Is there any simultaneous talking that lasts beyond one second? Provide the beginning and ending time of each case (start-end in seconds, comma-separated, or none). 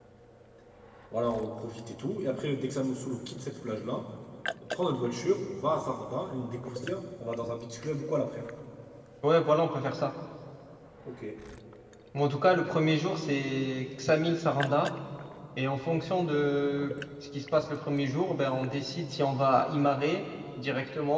none